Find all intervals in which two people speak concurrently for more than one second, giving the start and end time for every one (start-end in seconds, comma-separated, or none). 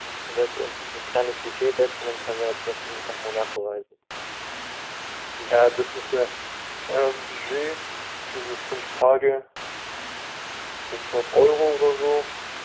none